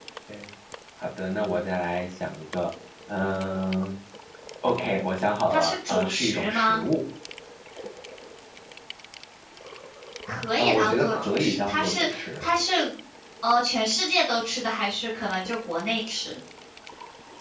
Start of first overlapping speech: 5.5 s

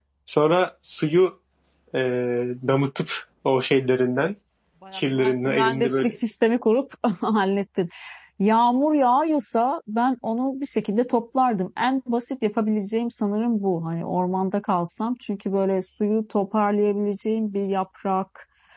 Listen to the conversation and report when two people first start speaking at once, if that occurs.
4.9 s

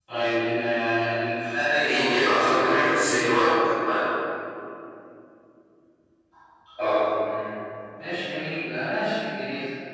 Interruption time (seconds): 1.8 s

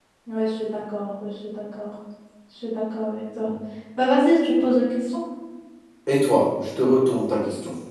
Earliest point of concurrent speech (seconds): none

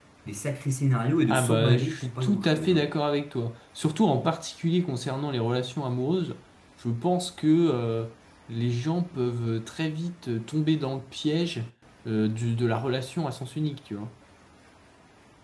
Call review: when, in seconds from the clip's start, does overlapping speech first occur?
1.2 s

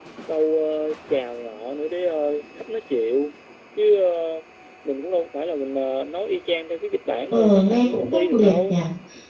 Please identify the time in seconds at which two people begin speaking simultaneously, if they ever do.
7.3 s

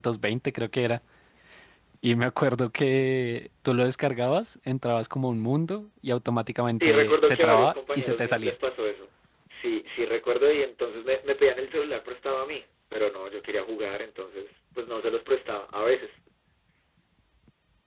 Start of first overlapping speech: 6.8 s

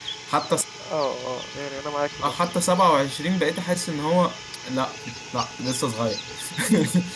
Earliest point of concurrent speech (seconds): none

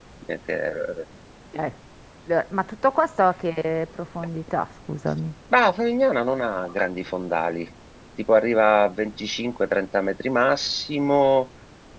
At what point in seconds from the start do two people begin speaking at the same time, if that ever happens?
none

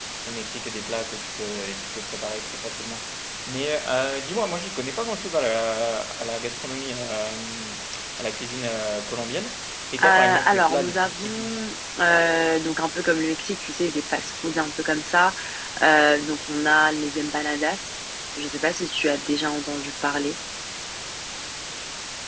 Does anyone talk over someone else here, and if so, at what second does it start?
10.0 s

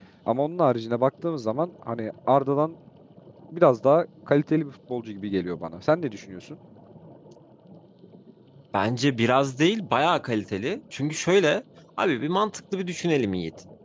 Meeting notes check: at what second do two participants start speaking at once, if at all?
none

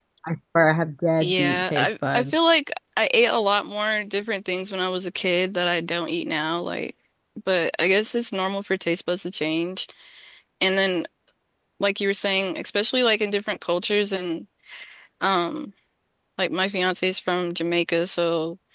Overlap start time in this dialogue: 1.2 s

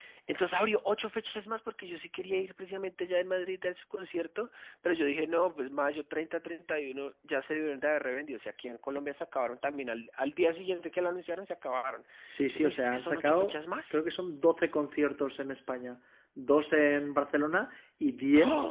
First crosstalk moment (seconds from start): 12.3 s

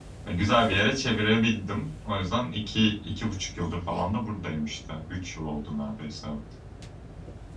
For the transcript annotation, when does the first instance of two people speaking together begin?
none

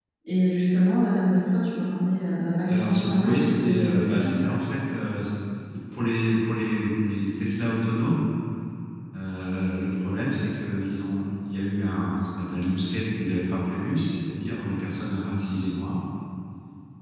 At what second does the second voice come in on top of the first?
2.7 s

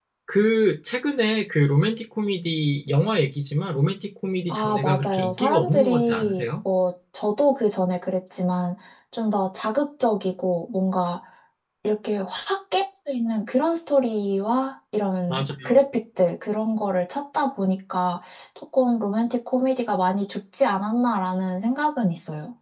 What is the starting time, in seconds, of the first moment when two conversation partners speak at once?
4.5 s

